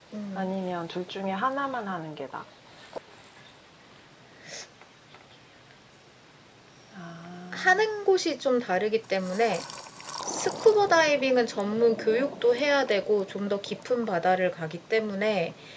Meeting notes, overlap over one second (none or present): none